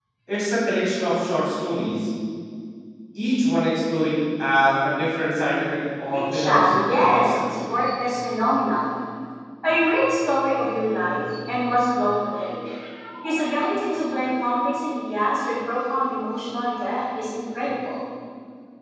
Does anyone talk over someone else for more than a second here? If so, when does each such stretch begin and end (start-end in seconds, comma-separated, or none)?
6.1-7.3